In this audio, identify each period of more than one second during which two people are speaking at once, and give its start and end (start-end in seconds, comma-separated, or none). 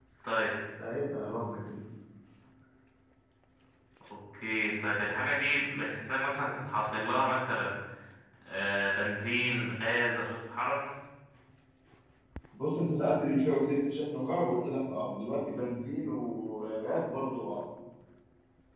none